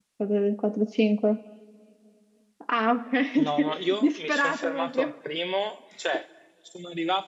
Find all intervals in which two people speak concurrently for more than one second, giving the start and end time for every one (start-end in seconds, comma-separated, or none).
3.4-5.2